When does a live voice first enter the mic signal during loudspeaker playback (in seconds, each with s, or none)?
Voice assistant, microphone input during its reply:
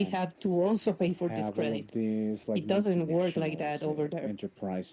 none